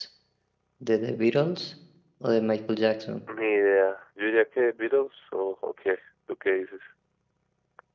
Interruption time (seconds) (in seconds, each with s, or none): none